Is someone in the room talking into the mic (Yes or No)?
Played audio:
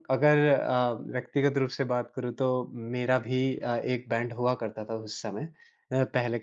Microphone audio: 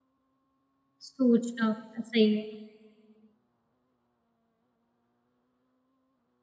Yes